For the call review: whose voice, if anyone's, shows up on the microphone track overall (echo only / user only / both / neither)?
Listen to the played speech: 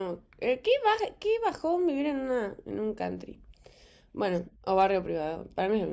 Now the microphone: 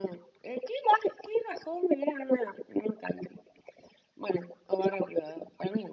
echo only